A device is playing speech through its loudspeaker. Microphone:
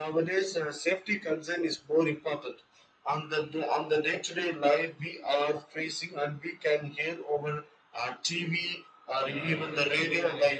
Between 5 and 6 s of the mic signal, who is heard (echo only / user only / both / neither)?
echo only